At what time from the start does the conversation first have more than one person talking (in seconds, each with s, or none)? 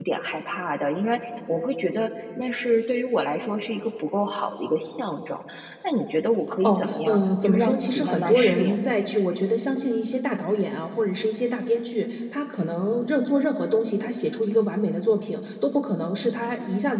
6.6 s